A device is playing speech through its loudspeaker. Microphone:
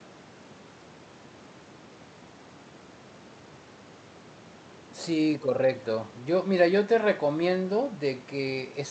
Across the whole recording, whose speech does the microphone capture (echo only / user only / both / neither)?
user only